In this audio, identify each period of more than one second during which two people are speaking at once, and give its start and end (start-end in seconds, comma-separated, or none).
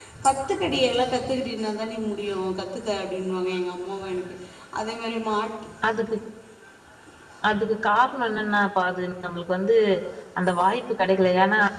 none